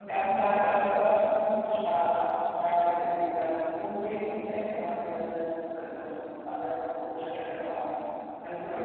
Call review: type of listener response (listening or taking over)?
taking over